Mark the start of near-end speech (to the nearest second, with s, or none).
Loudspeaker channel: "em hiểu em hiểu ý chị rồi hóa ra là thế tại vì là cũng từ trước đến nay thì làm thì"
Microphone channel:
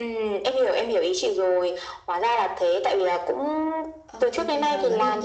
4 s